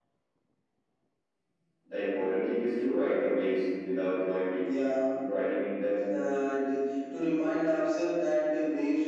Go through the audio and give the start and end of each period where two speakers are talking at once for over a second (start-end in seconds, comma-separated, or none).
none